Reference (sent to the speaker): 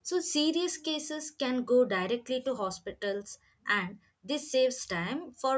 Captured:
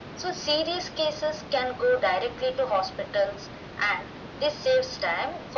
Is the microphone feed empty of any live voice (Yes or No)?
Yes